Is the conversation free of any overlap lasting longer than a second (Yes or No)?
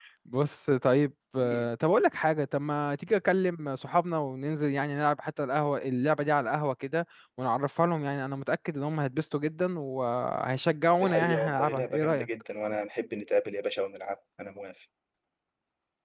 No